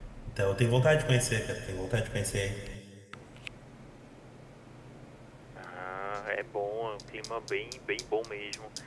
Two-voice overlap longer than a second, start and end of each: none

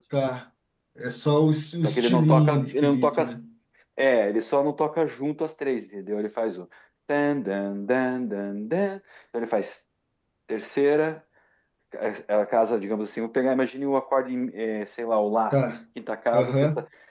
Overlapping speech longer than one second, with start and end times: 1.8-3.2

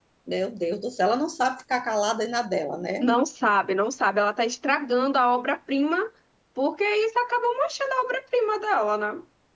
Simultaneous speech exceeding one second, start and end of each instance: none

